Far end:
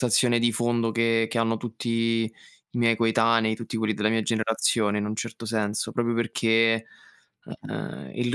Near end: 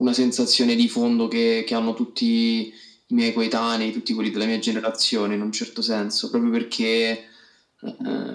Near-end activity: none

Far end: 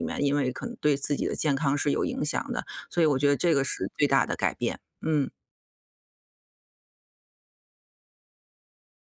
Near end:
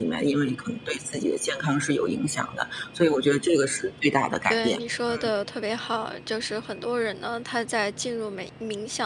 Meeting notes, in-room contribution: present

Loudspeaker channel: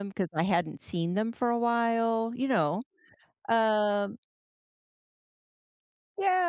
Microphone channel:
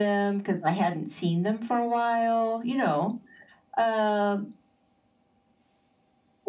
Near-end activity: none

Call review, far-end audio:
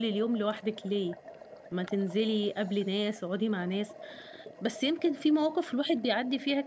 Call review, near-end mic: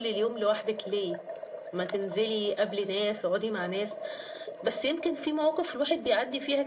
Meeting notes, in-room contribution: none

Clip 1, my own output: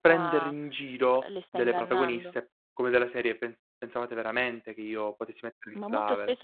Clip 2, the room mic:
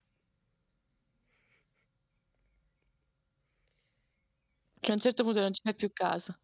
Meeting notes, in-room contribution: present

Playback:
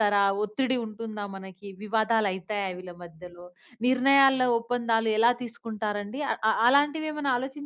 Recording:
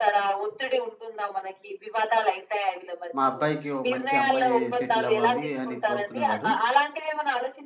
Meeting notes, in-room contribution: present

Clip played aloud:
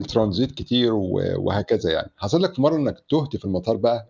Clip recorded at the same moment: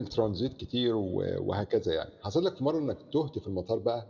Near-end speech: none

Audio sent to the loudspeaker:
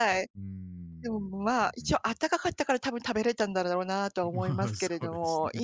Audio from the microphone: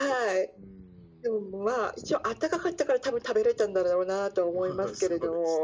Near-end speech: none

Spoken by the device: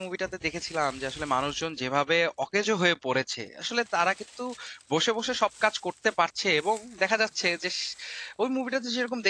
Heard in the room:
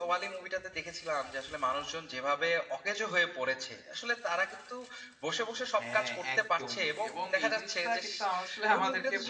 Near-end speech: present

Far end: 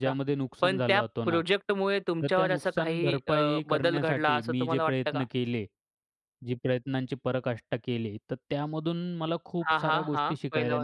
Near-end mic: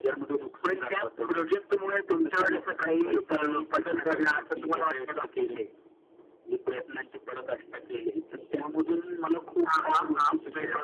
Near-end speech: none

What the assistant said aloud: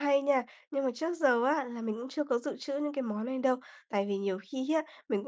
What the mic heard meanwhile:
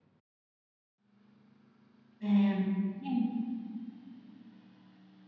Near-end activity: present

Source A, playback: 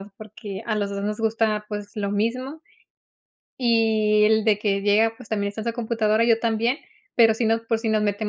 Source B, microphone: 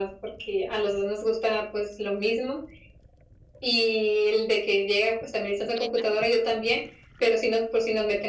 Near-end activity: present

